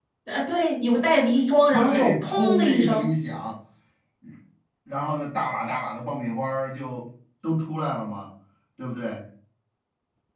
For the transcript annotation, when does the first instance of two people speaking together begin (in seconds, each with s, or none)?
1.7 s